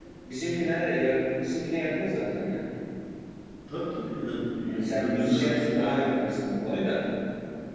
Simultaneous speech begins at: 4.9 s

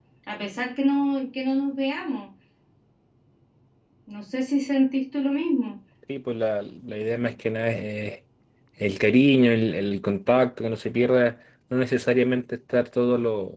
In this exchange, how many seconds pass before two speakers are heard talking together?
none

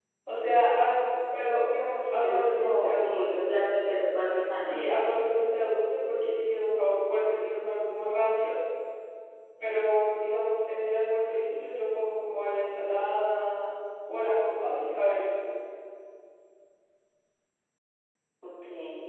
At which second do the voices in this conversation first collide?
2.0 s

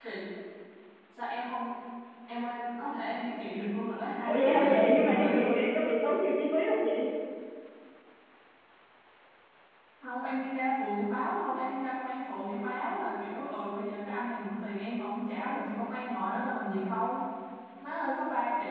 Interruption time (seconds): 4.2 s

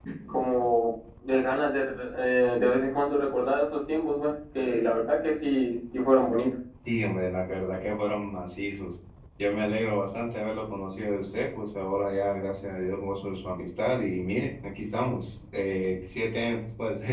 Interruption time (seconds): none

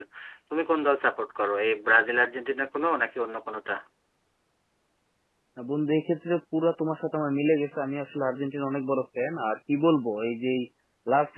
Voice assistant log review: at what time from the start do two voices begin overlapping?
none

